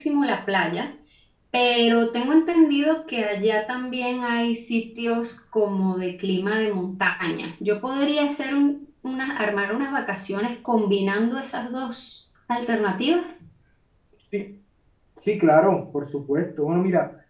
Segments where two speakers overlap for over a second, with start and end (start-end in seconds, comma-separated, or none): none